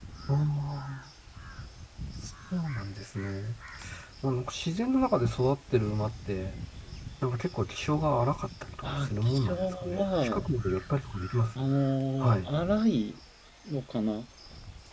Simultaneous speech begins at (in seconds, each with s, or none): 8.8 s